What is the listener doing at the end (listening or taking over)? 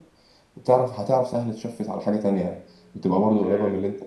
taking over